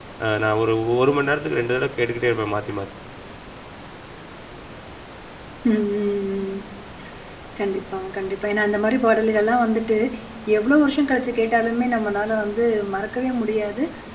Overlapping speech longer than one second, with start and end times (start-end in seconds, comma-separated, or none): none